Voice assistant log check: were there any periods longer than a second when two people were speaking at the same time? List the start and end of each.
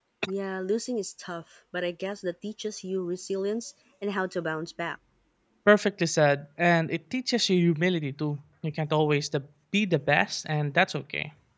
none

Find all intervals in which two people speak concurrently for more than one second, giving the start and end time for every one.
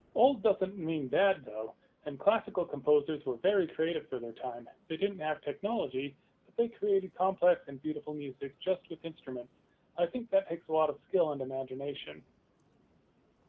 none

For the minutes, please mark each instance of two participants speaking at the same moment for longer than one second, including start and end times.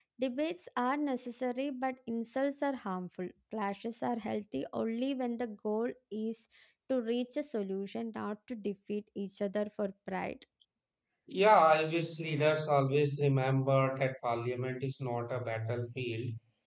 none

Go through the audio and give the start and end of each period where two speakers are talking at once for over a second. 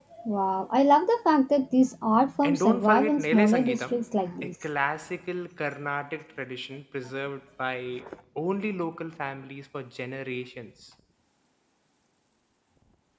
2.4-4.0

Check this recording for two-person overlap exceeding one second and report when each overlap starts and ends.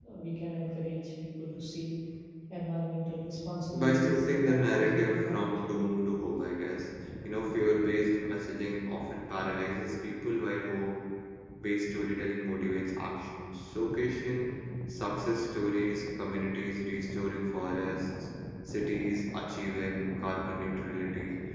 3.7-5.4

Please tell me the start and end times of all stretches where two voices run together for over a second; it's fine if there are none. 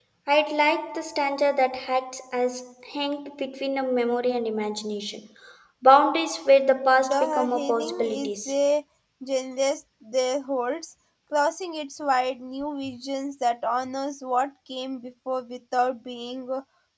7.1-8.5

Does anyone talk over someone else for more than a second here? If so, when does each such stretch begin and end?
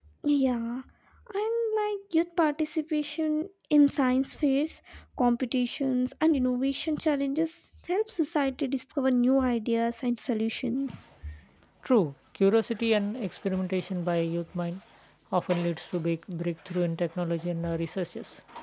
none

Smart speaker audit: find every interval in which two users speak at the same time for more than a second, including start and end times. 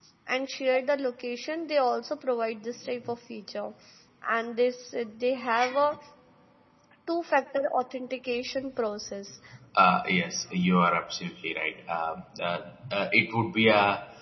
none

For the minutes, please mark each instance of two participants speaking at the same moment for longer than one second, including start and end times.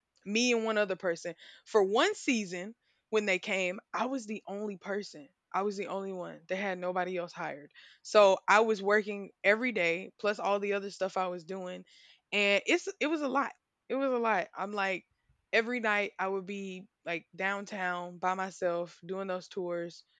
none

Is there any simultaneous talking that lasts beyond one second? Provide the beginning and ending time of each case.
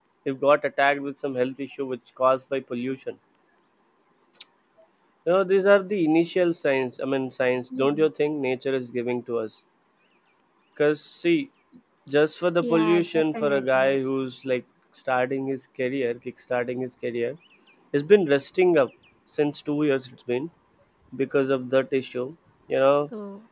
12.6-14.0

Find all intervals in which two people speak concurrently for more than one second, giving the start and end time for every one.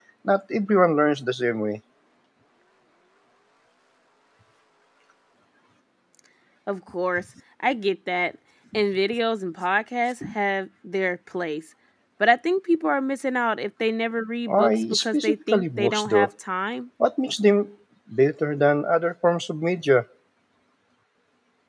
14.5-16.3

